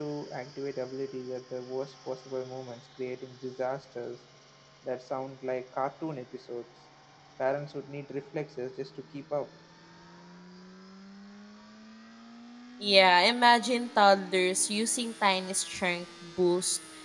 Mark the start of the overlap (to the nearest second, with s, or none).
none